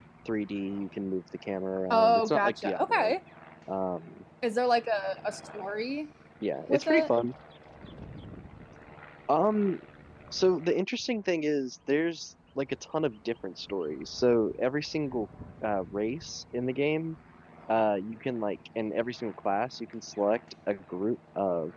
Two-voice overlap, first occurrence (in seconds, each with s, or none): 1.9 s